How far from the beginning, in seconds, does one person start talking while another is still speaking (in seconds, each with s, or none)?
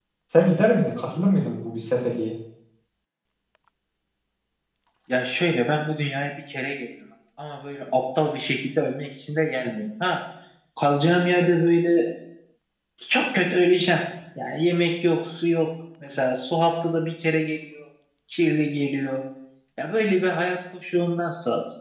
none